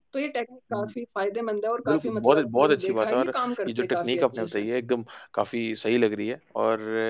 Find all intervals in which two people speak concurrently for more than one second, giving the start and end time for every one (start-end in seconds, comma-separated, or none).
1.9-4.6